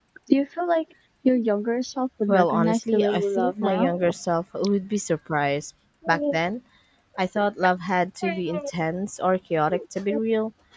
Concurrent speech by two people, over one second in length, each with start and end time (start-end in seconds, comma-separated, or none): 2.3-3.9